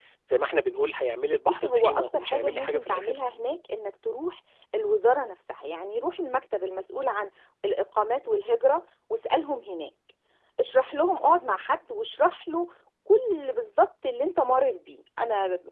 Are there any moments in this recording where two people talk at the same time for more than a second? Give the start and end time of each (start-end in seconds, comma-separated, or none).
1.5-3.2